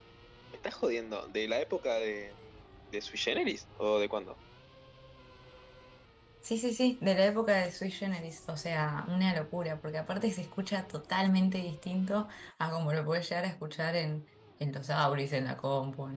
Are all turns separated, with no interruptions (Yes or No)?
Yes